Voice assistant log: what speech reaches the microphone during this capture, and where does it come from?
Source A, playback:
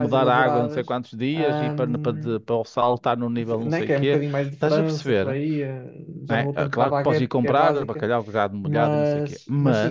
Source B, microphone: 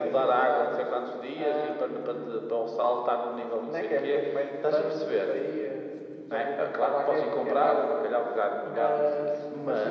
echo only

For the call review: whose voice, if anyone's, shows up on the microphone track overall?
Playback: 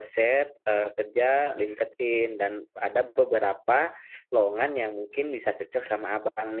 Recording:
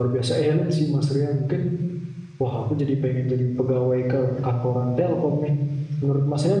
user only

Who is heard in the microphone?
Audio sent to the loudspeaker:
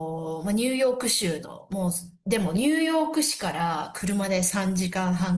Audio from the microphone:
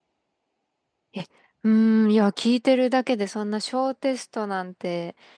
user only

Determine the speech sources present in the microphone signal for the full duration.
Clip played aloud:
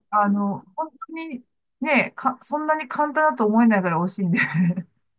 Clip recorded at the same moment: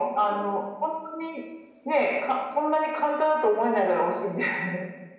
echo only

